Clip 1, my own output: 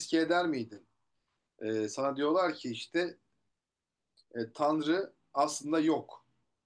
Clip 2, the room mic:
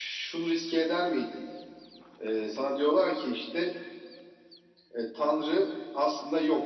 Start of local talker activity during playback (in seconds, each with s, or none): none